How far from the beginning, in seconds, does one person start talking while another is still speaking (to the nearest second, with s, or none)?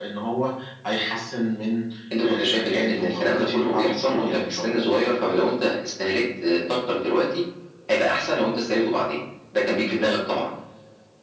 2 s